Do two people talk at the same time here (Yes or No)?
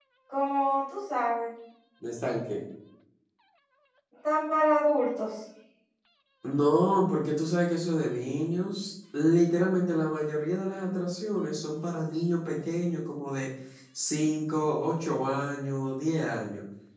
No